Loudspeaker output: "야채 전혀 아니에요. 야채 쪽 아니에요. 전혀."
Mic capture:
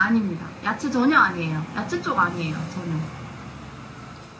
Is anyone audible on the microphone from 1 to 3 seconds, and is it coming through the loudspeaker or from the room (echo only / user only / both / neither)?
echo only